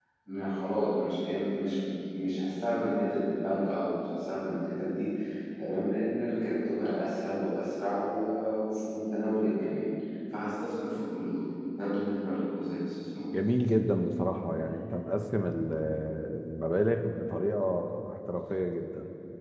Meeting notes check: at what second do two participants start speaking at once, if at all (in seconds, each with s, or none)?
none